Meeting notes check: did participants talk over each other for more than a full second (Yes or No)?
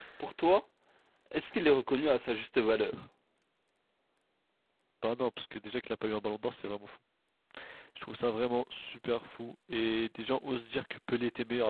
No